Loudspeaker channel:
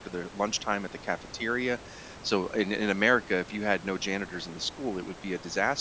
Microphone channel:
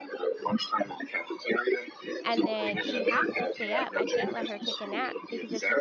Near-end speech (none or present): present